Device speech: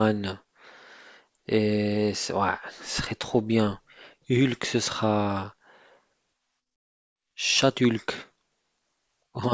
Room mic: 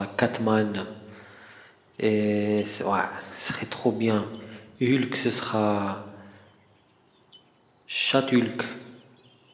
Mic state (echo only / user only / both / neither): echo only